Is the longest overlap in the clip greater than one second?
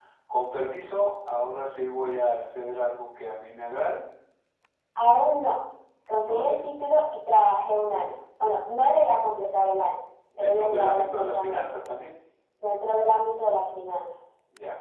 Yes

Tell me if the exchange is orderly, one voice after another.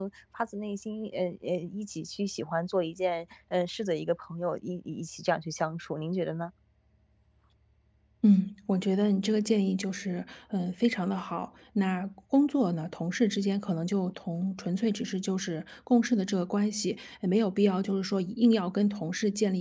Yes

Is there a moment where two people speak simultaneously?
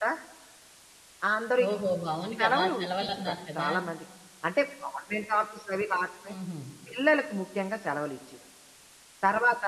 Yes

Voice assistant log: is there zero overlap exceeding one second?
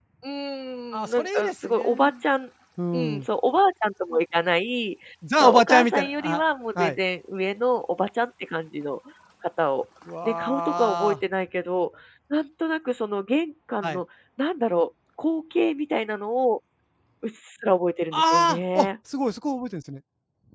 No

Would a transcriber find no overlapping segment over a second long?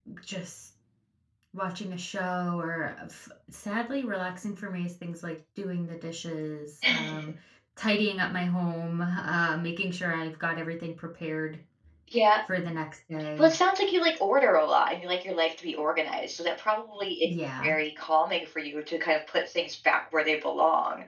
Yes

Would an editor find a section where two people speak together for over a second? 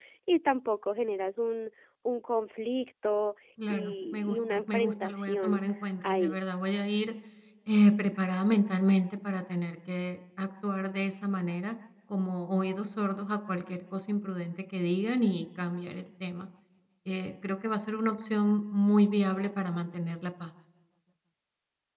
Yes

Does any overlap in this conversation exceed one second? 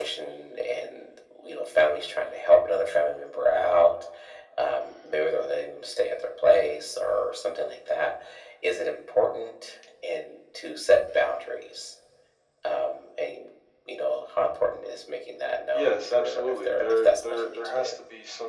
Yes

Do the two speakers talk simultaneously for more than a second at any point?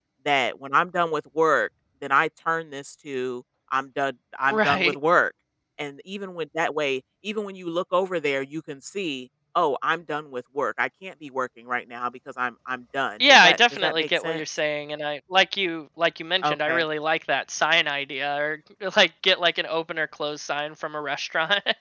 Yes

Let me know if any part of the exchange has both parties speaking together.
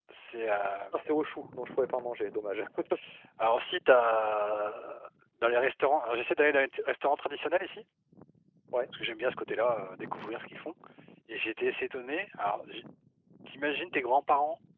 No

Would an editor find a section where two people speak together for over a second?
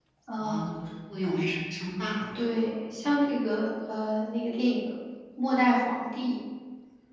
No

